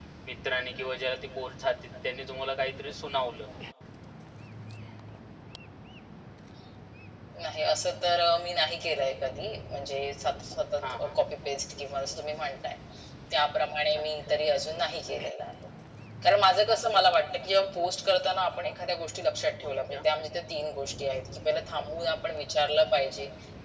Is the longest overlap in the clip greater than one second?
No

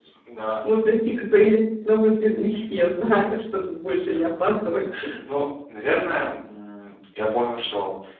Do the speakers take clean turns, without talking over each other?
Yes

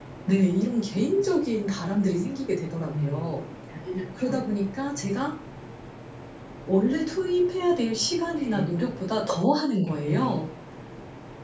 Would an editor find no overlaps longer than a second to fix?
Yes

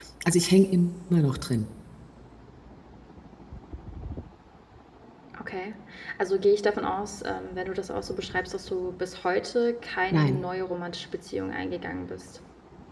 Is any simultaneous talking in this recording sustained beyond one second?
No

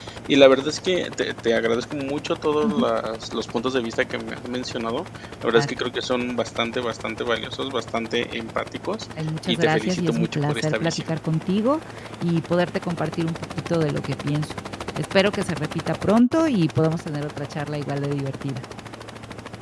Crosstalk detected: Yes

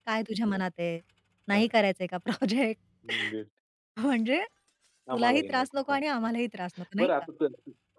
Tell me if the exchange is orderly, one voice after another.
No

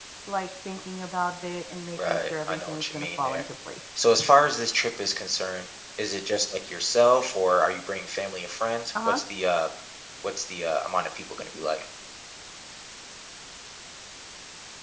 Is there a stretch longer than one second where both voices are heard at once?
Yes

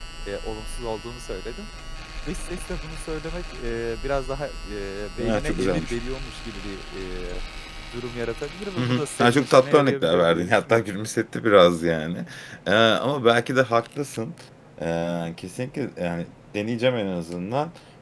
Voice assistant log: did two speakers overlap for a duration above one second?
Yes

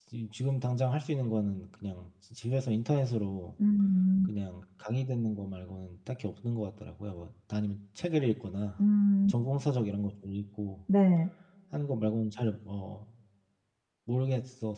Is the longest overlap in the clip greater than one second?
No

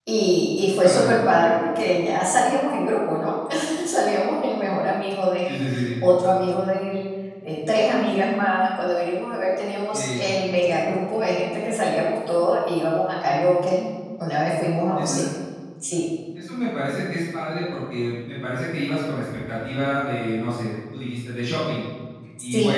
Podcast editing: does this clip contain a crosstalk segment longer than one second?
No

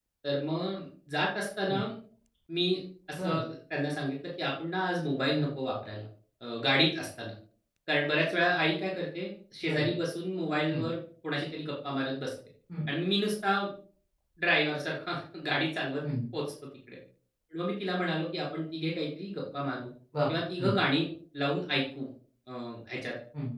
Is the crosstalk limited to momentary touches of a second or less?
Yes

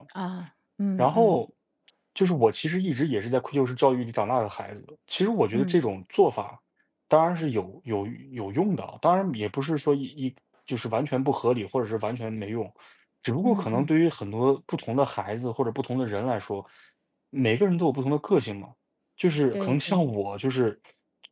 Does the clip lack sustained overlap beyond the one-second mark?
Yes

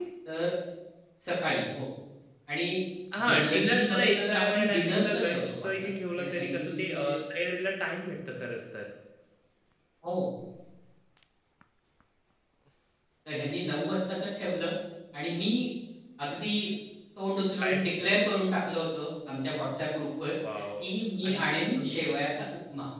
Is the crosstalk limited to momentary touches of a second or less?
No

